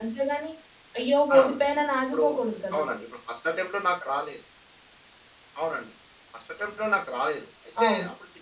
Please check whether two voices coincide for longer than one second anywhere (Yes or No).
No